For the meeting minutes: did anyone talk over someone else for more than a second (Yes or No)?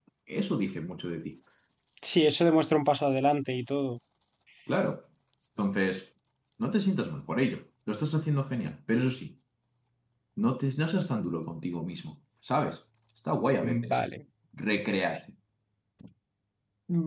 No